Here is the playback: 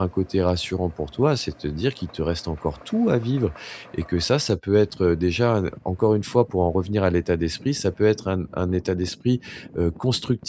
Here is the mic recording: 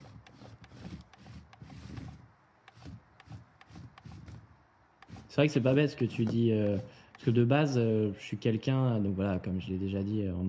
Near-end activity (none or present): present